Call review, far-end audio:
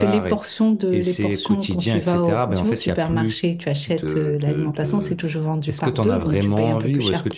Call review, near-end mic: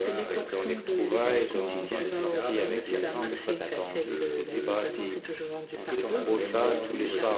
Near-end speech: present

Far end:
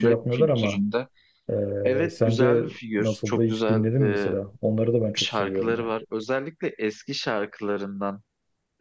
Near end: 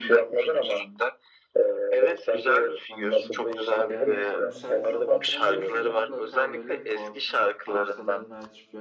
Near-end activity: present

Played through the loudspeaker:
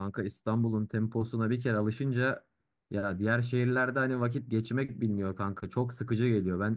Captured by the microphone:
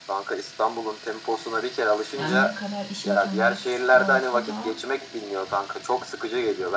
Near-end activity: present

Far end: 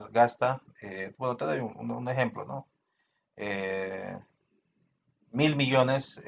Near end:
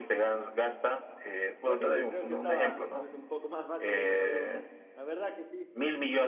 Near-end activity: present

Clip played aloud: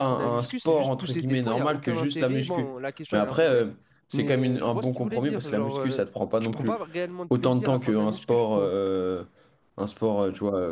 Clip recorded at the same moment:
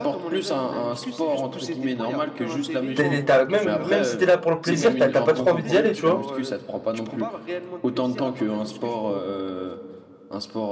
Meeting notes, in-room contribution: present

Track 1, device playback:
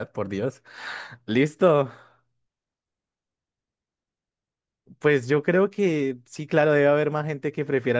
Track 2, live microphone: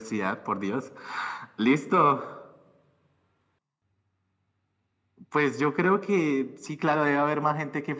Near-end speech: none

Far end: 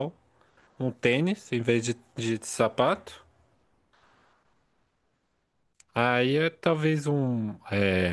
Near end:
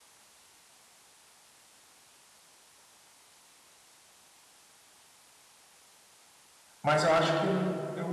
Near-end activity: present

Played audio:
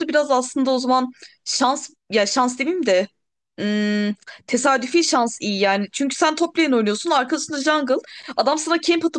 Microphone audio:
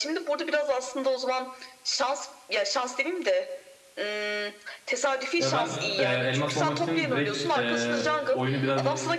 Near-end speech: present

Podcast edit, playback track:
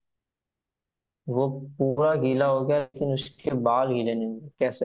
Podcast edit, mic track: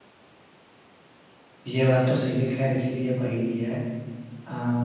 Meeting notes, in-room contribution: present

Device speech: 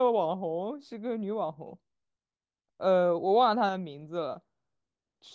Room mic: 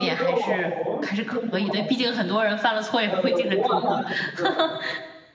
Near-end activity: present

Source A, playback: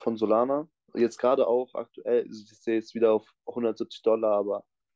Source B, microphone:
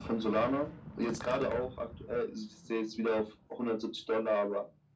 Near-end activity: none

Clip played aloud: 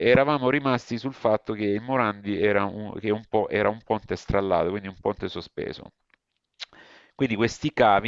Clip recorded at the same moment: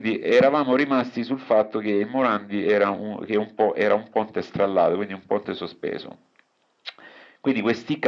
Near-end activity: none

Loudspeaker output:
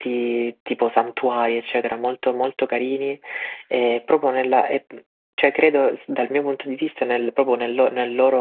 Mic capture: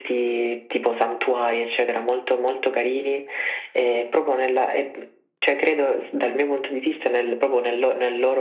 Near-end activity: none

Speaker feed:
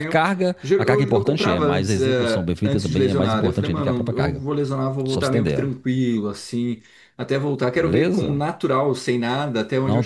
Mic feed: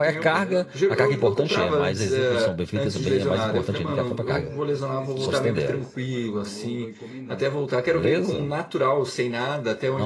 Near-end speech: present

